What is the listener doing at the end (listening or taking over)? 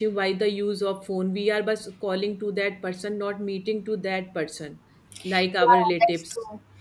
taking over